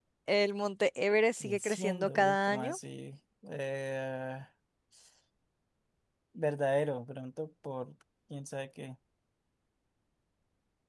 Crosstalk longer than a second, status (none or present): present